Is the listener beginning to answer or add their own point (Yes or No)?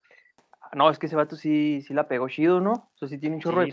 No